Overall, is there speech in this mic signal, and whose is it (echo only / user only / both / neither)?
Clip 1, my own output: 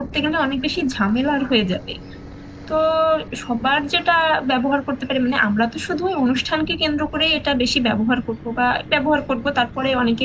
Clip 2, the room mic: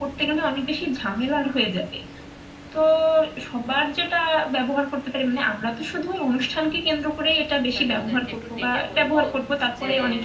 both